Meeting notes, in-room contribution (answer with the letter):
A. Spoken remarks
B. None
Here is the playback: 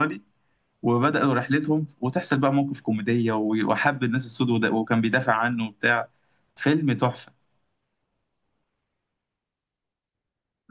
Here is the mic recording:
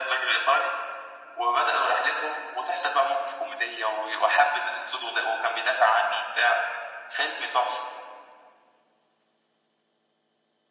B